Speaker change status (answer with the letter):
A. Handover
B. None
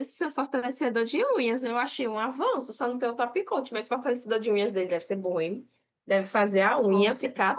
A